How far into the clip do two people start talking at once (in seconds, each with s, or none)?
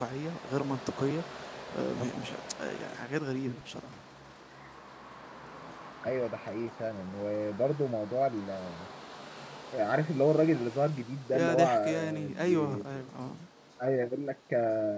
11.3 s